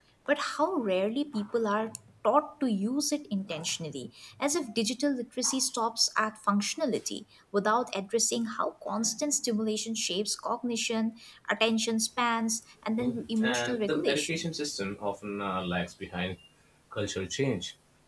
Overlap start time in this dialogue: 13.0 s

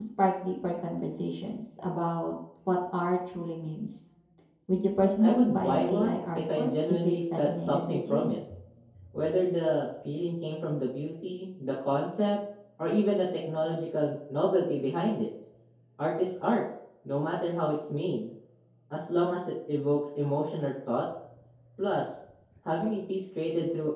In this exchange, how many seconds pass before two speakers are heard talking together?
5.0 s

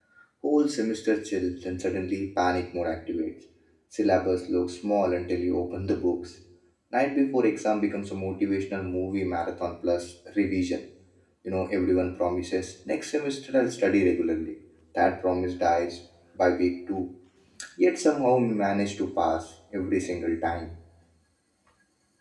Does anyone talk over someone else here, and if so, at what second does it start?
none

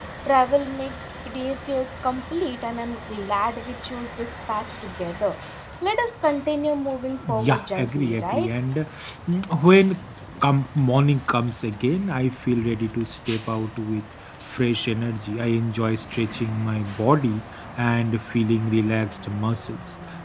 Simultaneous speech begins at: 7.2 s

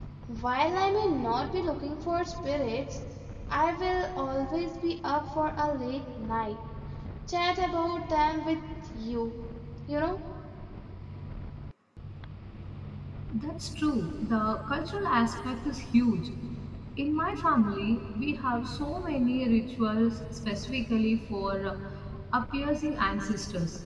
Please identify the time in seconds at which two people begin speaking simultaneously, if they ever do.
none

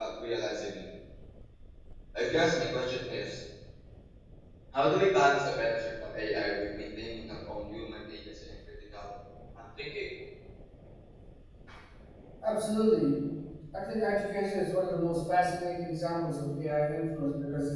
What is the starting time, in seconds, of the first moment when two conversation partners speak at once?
none

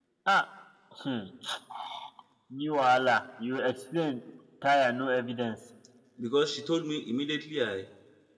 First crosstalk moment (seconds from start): none

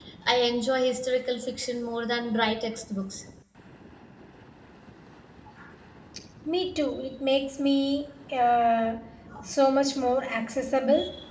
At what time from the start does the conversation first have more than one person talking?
none

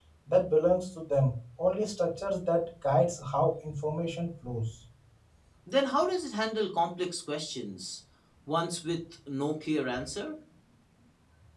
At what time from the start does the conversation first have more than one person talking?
none

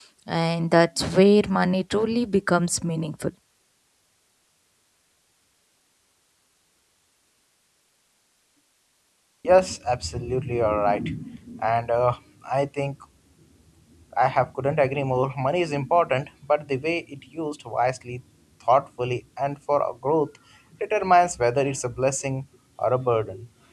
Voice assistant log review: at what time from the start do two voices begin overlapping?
none

